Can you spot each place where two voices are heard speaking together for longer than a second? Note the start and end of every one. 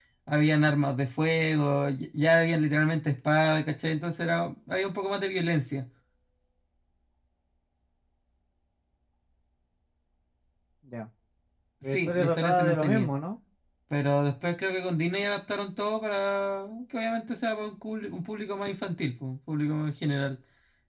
11.9-13.1

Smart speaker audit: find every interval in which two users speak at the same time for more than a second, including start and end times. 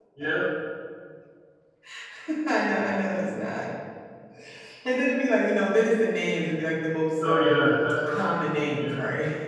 none

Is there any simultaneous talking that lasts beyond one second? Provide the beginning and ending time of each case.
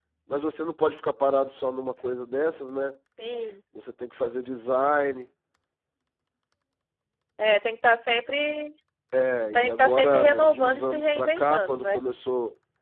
9.5-12.0

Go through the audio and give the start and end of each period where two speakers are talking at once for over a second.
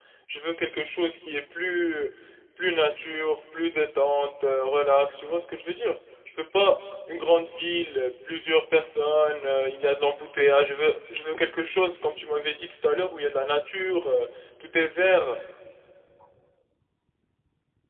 none

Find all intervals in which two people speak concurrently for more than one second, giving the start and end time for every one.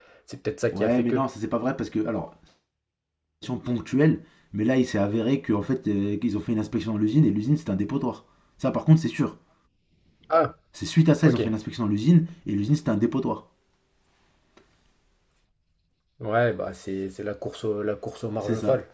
none

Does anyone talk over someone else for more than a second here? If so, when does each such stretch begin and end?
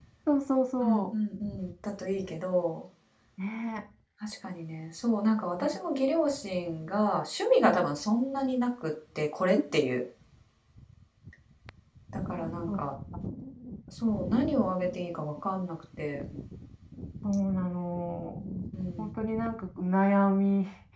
none

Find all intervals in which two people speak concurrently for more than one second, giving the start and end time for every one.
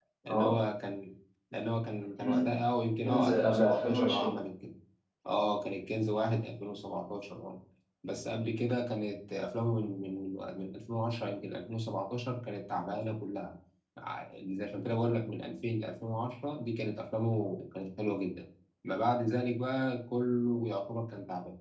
3.0-4.3

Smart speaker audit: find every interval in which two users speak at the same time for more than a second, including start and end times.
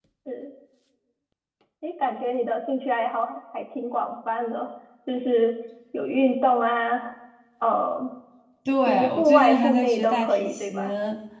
8.9-10.8

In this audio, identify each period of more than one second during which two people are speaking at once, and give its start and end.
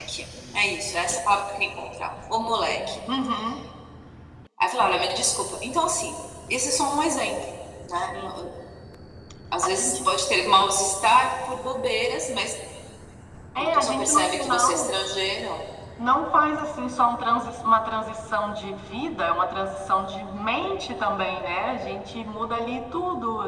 13.6-15.0

